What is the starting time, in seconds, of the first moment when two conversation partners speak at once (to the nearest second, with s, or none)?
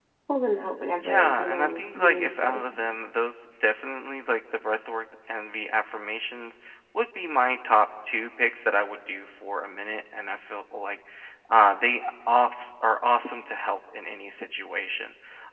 1 s